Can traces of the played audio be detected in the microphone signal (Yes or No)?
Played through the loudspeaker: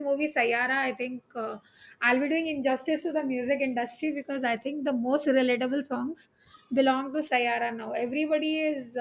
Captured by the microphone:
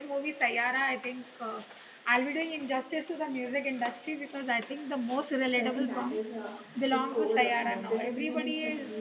Yes